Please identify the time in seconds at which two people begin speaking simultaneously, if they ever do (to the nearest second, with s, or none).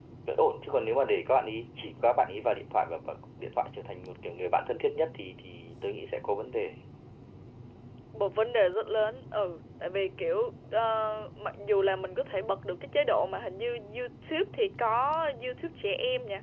none